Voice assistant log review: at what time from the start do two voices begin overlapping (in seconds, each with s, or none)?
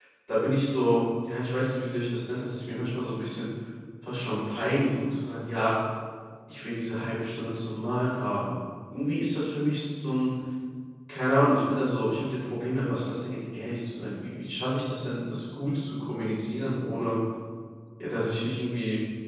none